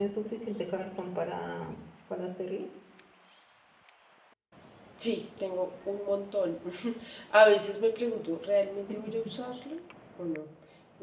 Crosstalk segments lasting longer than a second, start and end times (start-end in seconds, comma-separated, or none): none